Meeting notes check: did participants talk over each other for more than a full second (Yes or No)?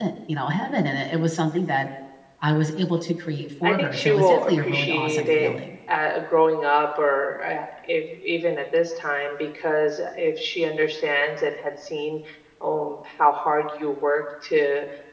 Yes